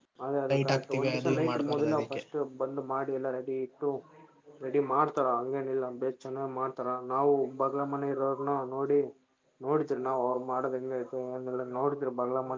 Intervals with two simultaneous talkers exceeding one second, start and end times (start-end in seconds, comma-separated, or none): 0.5-2.2